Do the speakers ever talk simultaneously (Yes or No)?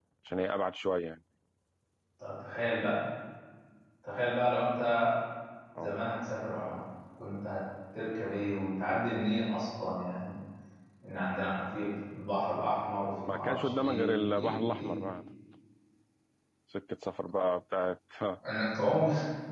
Yes